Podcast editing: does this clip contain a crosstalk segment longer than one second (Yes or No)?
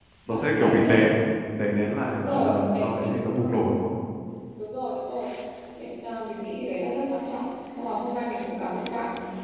Yes